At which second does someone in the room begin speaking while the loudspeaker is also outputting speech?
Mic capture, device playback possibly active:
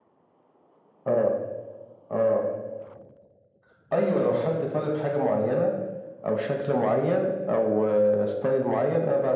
none

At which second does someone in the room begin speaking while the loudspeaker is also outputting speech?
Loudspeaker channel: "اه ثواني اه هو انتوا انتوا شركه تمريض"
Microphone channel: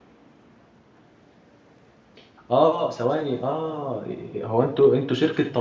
none

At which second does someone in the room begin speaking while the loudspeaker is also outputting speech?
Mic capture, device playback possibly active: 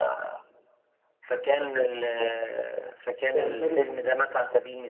3.3 s

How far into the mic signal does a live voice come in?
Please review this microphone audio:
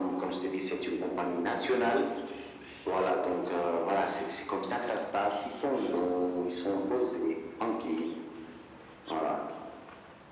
none

